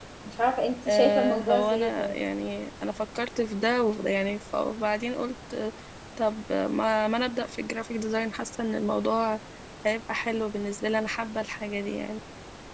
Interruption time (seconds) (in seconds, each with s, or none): 0.9 s